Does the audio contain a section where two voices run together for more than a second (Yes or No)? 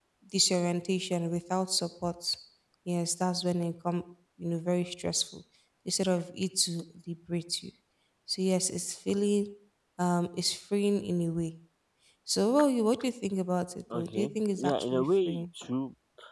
Yes